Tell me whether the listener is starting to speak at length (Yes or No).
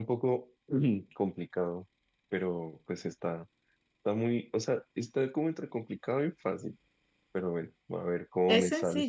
Yes